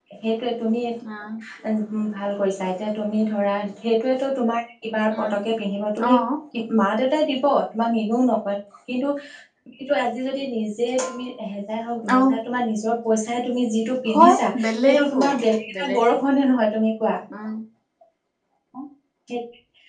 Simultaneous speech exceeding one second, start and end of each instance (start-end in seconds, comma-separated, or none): 14.1-15.3